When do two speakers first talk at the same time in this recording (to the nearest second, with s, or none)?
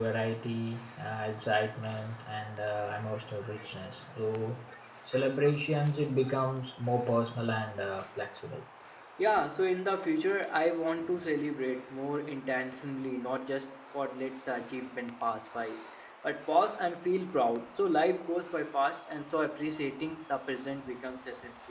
none